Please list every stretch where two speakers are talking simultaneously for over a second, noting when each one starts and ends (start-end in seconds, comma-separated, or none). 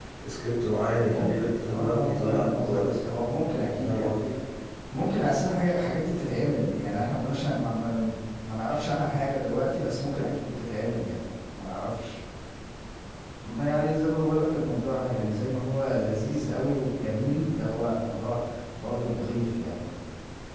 0.9-2.9